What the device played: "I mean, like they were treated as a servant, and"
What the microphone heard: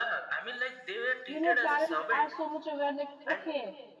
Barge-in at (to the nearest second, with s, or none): 1 s